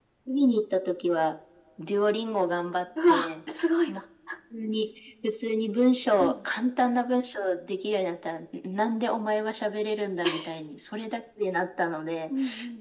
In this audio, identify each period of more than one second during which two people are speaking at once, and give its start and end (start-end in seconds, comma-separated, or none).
none